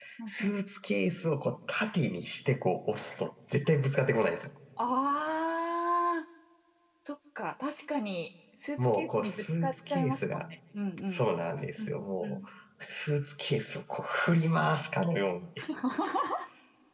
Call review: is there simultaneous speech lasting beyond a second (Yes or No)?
Yes